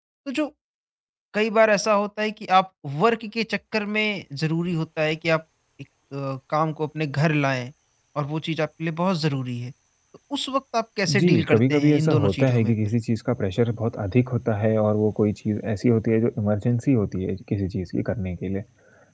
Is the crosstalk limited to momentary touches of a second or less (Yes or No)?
No